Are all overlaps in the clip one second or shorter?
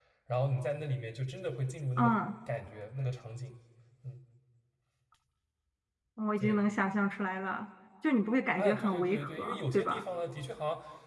No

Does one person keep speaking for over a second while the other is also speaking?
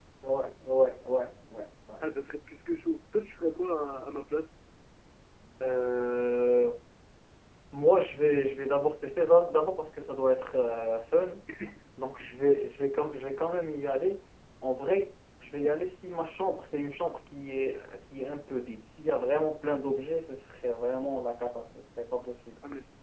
No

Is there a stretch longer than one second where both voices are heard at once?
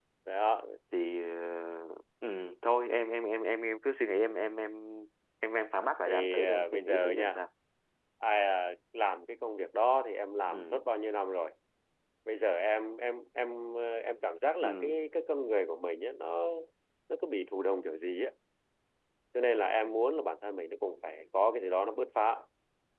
Yes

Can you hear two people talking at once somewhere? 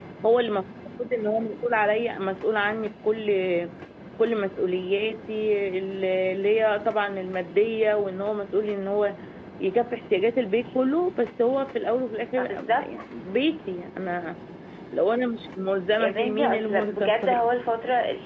Yes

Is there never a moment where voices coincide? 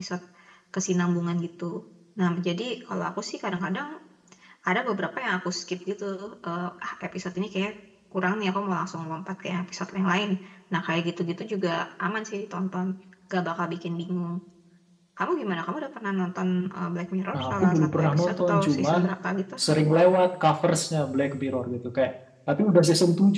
No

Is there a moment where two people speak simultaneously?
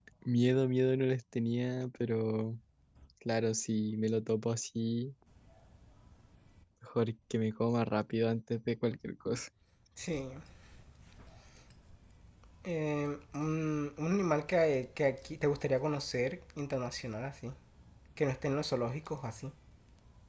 No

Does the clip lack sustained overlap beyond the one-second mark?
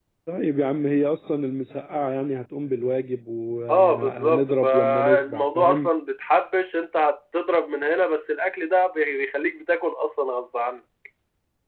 No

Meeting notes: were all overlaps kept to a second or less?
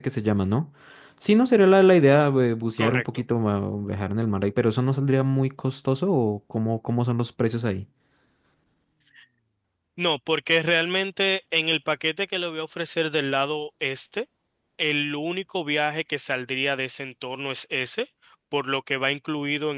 Yes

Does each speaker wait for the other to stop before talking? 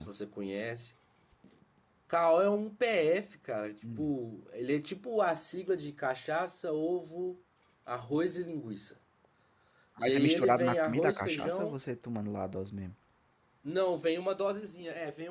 No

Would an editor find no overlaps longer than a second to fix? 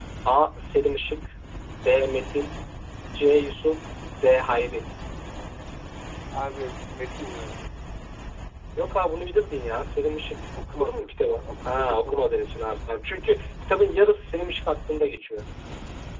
No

